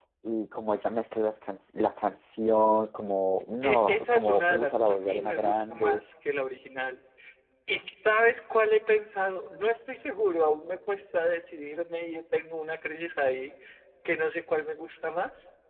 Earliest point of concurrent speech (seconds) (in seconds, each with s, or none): 3.6 s